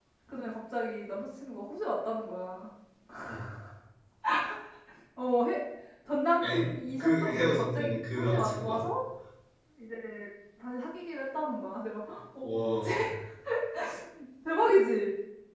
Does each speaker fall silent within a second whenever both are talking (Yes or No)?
No